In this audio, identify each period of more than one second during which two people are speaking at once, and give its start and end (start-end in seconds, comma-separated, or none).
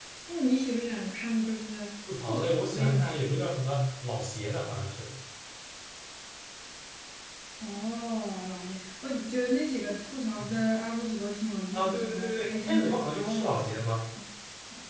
2.2-3.4, 11.7-13.7